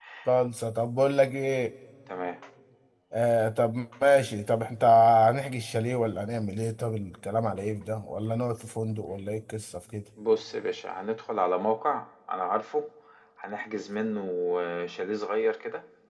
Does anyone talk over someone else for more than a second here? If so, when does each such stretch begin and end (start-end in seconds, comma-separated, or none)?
none